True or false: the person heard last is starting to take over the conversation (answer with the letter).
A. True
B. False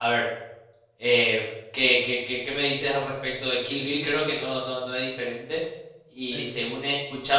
B